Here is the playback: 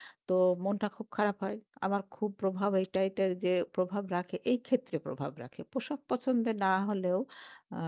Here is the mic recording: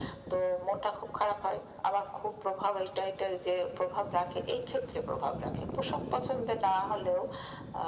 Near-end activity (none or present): none